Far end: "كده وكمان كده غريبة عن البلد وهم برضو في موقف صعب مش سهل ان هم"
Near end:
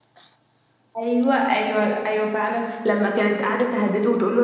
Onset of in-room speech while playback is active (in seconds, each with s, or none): 1.0 s